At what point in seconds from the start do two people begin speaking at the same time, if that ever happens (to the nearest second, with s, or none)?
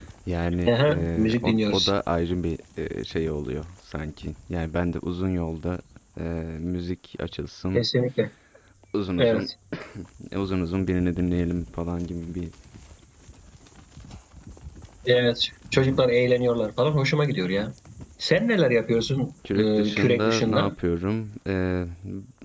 1 s